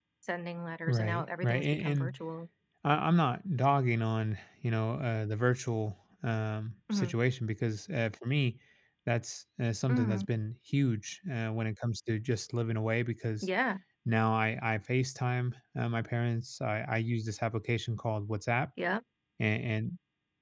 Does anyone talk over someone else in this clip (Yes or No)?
Yes